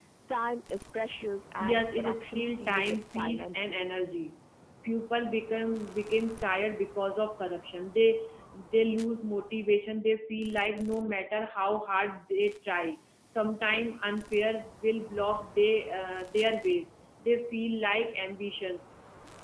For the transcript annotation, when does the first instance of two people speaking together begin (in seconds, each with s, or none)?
1.6 s